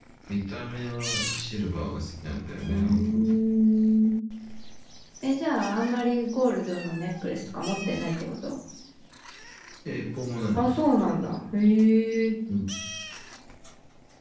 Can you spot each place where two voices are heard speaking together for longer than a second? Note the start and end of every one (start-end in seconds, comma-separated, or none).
none